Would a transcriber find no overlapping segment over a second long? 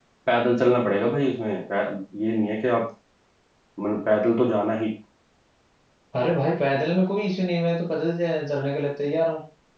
Yes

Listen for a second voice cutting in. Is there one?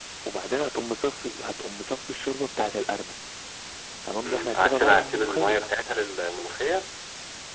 Yes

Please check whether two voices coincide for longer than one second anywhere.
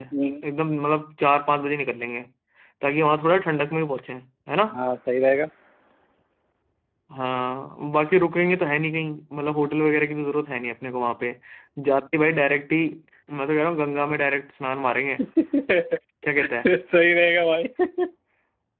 No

